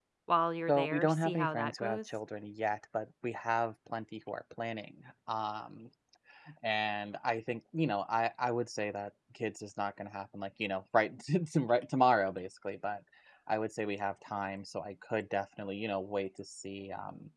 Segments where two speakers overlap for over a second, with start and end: 0.7-2.0

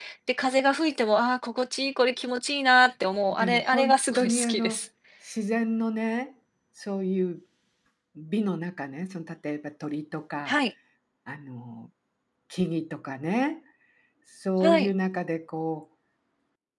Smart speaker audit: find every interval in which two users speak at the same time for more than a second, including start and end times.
3.3-4.8

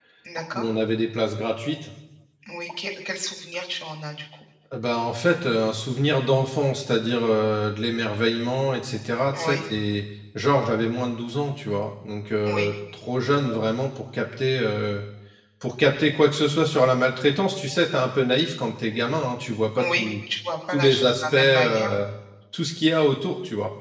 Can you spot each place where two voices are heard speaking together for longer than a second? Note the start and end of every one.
20.7-21.9

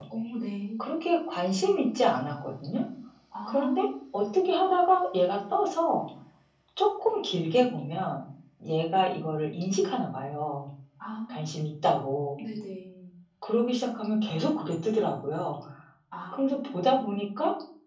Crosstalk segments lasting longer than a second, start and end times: none

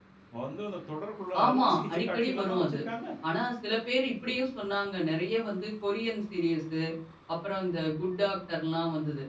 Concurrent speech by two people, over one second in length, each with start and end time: 1.4-2.8

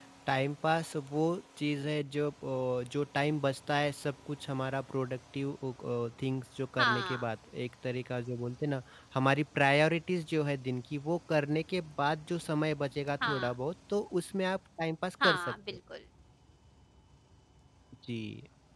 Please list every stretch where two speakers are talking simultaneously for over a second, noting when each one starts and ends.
none

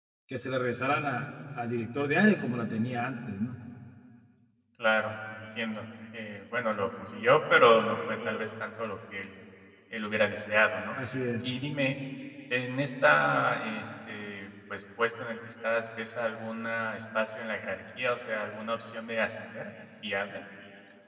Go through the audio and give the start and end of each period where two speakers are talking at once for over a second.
none

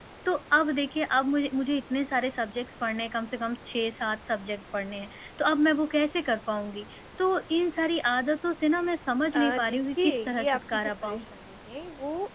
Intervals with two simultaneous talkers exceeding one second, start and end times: 9.3-11.2

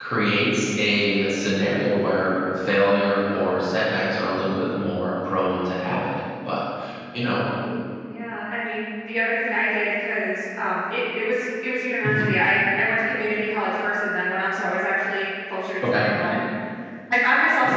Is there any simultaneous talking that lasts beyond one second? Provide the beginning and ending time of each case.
none

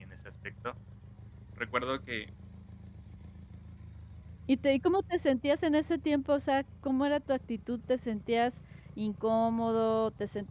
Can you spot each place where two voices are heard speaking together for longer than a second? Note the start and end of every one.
none

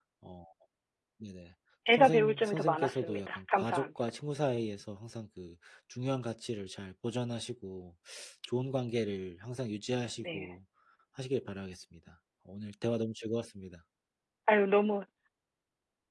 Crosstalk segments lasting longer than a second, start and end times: 1.9-3.9

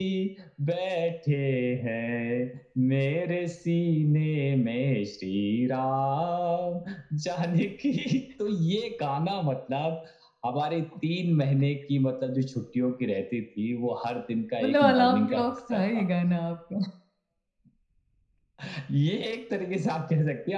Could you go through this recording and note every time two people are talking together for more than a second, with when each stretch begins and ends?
14.6-16.0

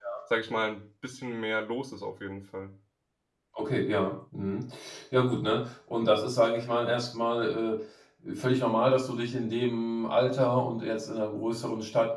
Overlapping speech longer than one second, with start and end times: none

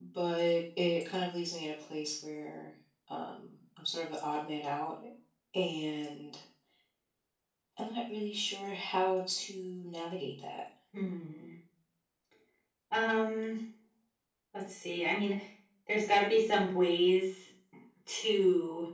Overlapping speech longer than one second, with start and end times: none

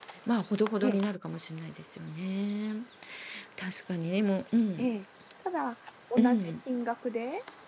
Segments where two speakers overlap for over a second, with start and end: none

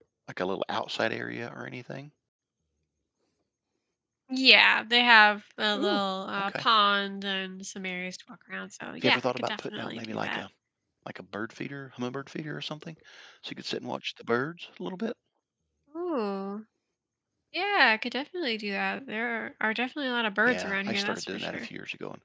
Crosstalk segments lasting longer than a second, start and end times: 9.0-10.4, 20.5-21.7

